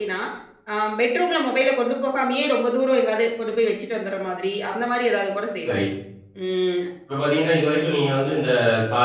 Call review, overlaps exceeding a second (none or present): none